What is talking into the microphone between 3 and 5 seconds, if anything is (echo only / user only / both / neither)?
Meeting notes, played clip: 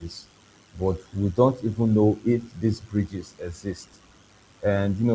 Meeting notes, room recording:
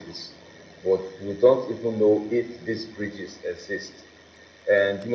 echo only